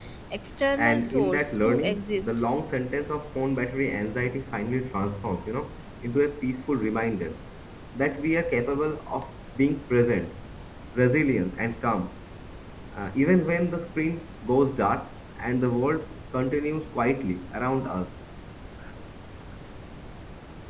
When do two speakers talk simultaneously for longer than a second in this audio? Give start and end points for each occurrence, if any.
0.8-2.3

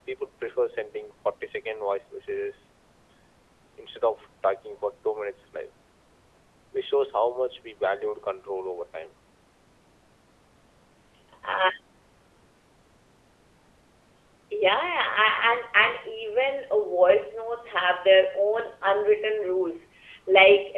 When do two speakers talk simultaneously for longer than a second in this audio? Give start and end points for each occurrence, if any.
none

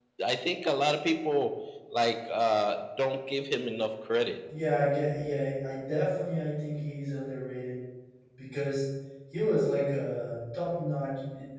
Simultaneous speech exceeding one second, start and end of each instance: none

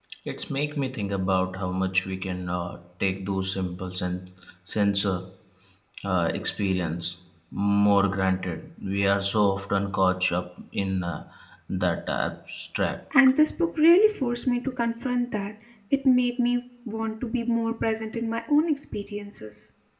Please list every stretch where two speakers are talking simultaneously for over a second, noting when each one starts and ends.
none

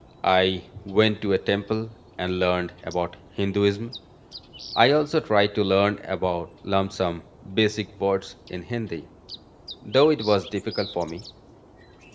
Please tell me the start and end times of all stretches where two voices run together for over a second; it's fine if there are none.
none

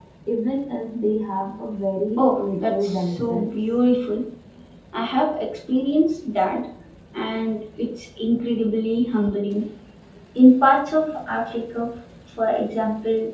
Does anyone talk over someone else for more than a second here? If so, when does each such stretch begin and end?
2.2-3.8

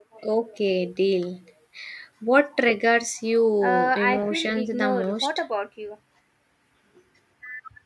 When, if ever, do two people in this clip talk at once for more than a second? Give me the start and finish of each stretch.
3.6-5.3

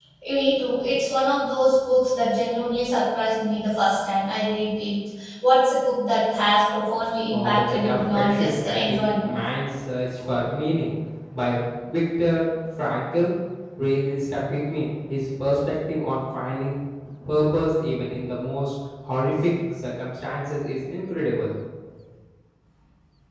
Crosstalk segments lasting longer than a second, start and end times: 7.3-9.3

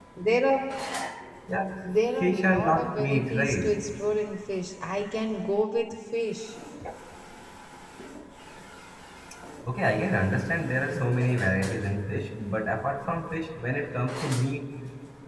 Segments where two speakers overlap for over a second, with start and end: 2.2-3.8

